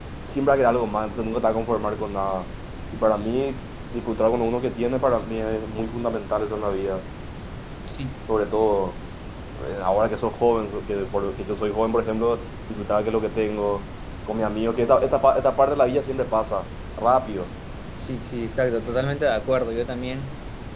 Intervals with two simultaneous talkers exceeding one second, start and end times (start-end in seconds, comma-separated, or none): none